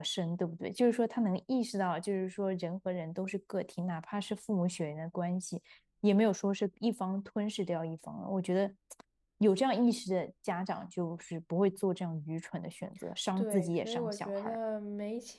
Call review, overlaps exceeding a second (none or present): present